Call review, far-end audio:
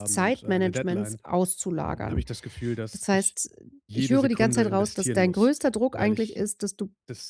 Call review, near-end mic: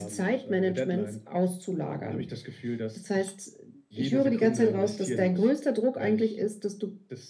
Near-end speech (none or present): none